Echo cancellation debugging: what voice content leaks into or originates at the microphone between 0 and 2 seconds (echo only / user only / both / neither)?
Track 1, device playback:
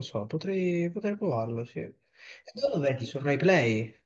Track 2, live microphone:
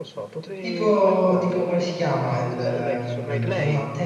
both